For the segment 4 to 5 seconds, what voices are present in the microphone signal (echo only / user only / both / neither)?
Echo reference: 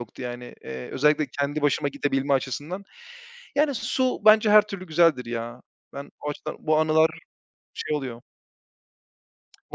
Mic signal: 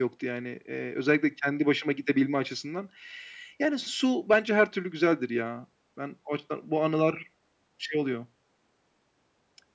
echo only